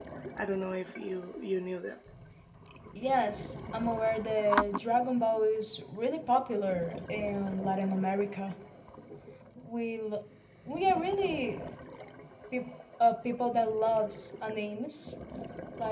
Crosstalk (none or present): none